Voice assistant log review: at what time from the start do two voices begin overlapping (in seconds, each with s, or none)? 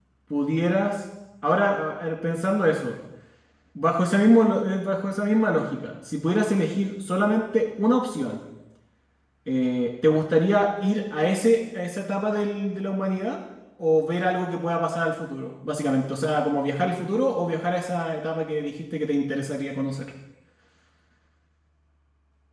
none